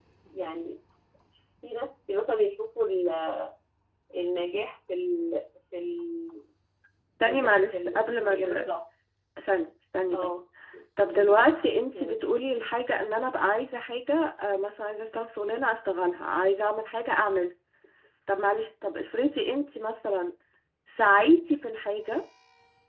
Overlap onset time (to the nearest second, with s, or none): 7 s